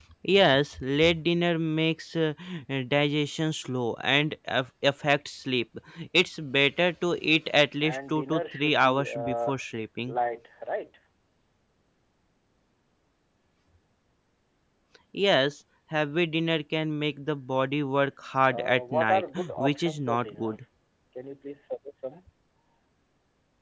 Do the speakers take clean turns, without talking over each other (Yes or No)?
No